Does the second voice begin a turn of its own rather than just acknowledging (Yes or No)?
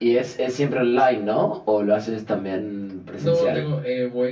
Yes